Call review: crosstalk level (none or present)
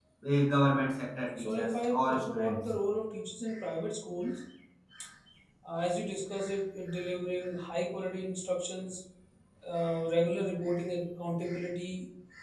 present